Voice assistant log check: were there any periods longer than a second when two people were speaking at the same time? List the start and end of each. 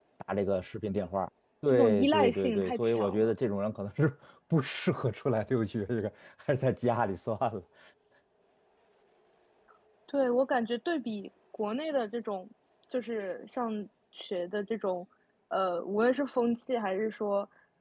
1.7-3.4

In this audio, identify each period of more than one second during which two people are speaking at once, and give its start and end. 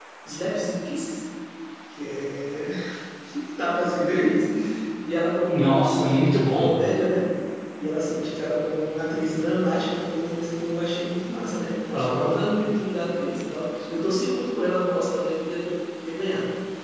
5.5-6.7

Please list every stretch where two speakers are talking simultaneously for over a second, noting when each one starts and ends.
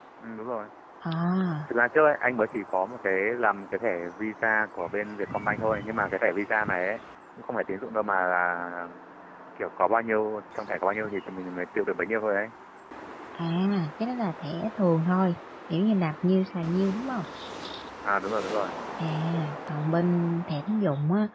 none

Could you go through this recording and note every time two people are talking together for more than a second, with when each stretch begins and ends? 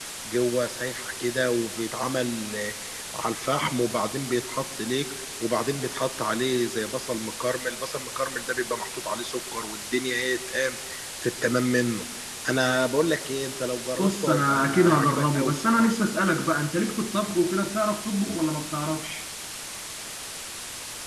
14.0-15.9

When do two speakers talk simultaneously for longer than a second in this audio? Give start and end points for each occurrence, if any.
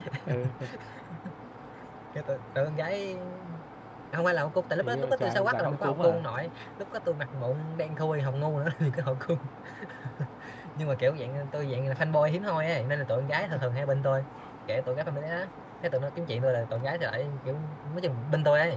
4.8-6.2

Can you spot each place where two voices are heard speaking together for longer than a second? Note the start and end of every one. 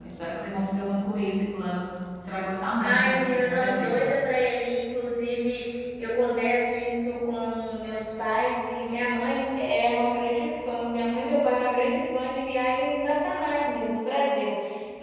2.8-4.1

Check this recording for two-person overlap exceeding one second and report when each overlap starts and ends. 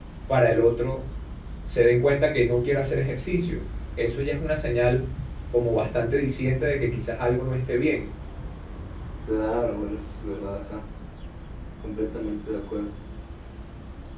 none

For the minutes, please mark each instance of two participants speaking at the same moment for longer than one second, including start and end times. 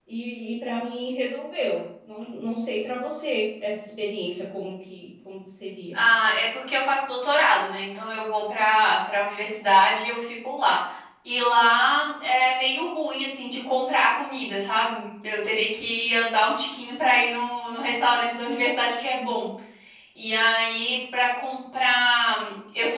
none

